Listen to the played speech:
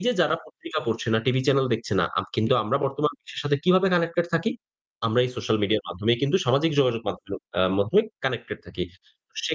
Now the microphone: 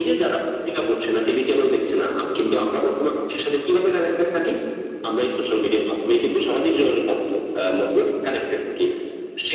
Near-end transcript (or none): none